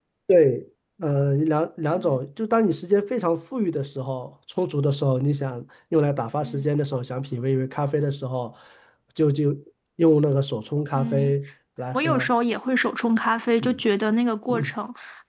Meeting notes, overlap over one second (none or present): none